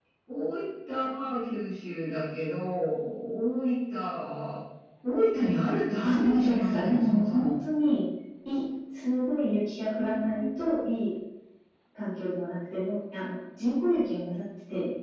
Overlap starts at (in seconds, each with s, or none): 6.0 s